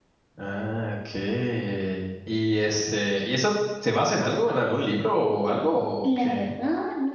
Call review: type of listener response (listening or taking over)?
taking over